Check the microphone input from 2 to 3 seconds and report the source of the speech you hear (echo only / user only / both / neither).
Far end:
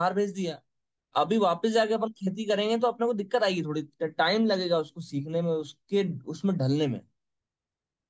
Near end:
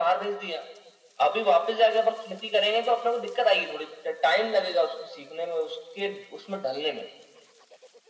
echo only